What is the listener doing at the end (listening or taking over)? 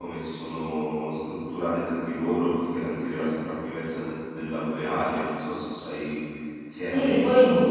taking over